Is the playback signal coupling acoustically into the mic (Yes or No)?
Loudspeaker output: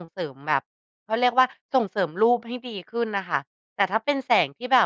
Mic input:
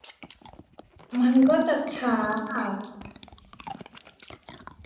No